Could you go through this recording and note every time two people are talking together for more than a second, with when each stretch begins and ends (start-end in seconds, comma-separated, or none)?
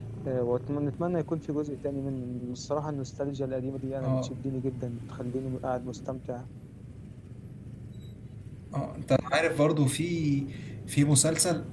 none